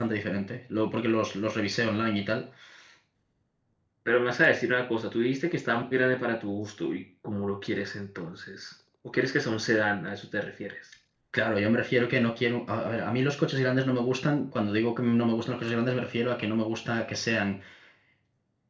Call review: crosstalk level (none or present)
none